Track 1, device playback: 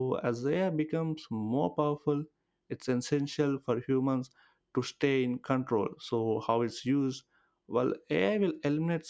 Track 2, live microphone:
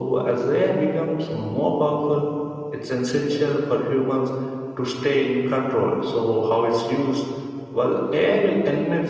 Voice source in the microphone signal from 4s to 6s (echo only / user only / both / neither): echo only